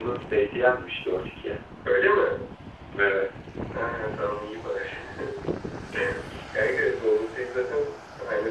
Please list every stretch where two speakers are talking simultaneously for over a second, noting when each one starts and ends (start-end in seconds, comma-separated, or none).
none